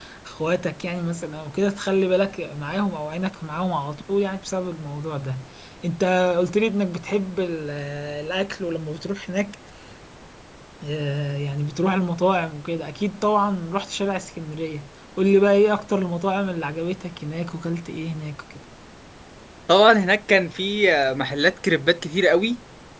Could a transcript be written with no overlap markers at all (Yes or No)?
Yes